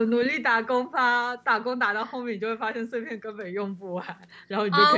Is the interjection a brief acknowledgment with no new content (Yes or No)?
No